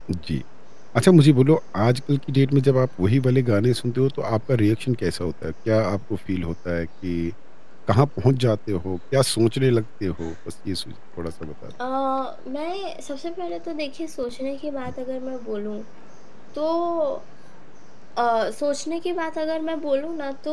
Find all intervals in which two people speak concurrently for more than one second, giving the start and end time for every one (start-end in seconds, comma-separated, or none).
none